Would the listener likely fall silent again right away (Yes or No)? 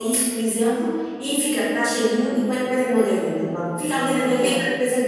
Yes